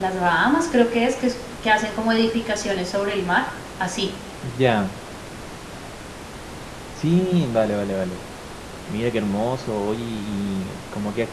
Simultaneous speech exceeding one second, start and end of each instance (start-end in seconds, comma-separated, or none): none